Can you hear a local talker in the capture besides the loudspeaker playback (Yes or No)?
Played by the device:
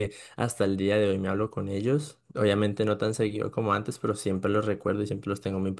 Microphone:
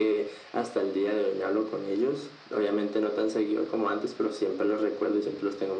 No